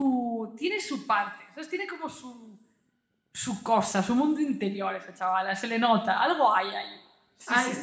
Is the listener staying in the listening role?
No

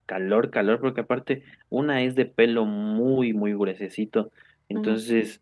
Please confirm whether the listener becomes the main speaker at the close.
No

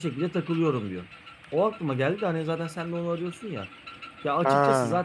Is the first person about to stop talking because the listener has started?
No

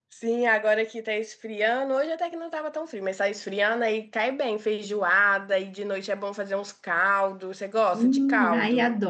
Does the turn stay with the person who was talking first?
No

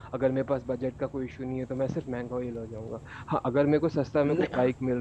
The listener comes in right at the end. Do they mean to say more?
No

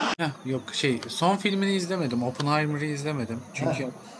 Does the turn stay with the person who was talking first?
Yes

